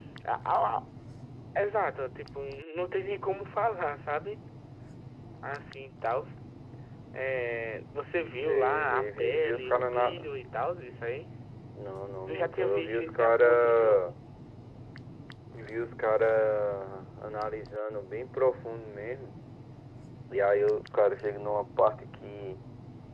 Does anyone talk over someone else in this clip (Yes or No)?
Yes